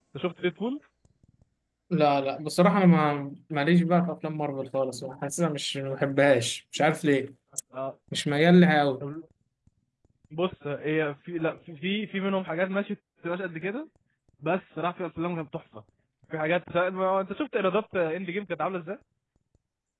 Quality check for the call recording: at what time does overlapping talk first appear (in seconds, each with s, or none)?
none